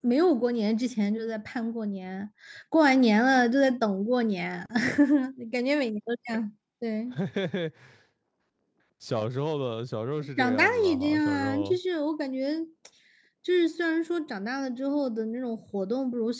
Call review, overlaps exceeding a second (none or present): present